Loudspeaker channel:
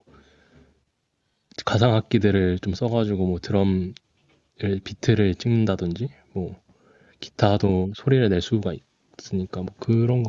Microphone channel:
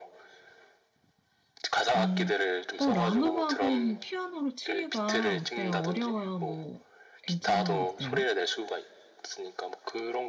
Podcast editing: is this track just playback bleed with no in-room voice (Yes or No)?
No